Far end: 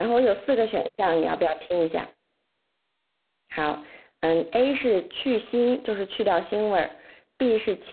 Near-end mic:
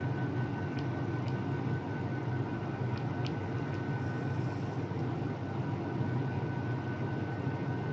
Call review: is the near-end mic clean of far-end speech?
Yes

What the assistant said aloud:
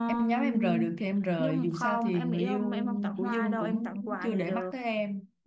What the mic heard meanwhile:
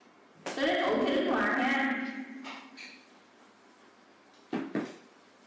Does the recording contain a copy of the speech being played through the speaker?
No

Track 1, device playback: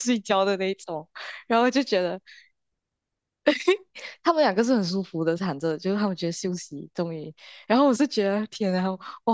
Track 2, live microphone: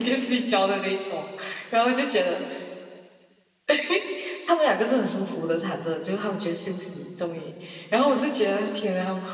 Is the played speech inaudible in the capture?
No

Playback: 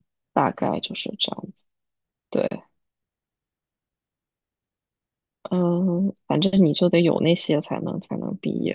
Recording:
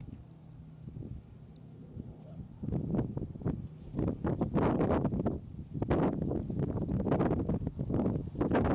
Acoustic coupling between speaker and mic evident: No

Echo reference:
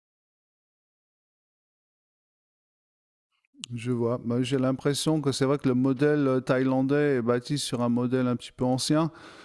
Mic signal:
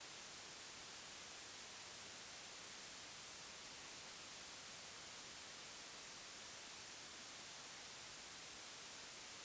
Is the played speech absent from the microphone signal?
Yes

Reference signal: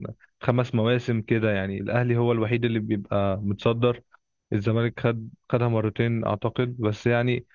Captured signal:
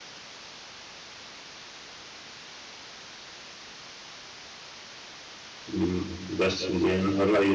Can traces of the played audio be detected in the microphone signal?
No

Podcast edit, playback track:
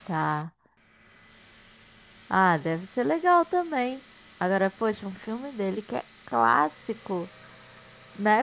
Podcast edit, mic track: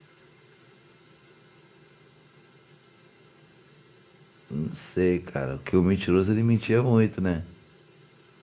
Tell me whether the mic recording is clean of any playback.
Yes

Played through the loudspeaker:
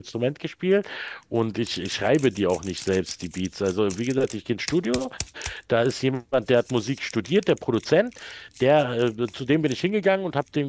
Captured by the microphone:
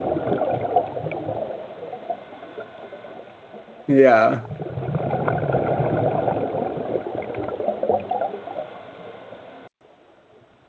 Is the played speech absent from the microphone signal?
Yes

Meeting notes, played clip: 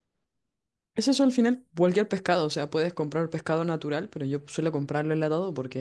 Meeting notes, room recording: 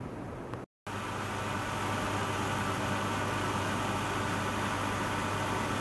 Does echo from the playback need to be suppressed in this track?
No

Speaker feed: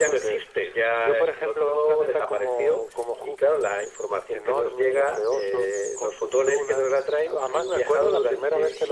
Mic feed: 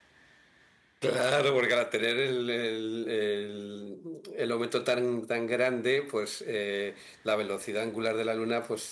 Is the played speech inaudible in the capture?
Yes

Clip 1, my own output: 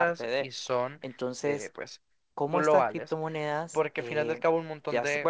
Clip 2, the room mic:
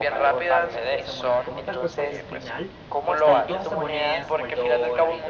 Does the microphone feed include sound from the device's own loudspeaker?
Yes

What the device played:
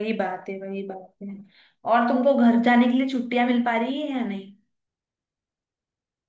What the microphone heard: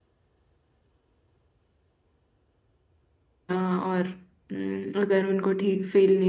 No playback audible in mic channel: Yes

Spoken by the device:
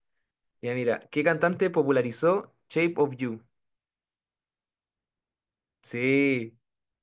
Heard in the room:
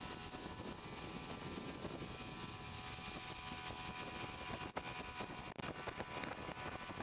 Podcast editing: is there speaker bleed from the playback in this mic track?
No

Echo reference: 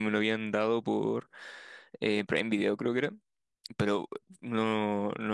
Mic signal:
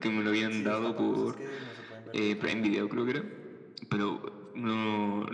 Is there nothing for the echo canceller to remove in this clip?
No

